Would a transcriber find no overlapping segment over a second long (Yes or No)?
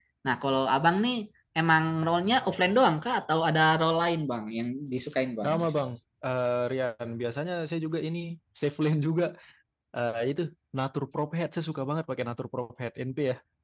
Yes